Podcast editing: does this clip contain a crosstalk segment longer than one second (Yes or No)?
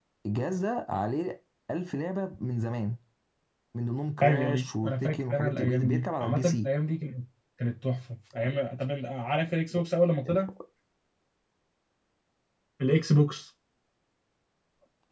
Yes